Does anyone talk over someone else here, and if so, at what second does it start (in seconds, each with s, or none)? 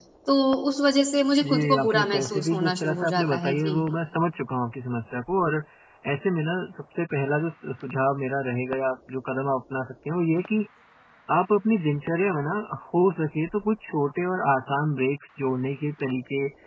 1.4 s